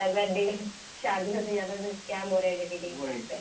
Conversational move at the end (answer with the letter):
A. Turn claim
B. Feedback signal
A